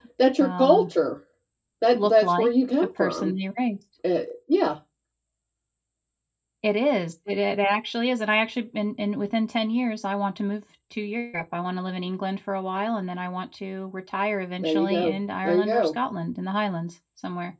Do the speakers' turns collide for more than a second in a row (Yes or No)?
Yes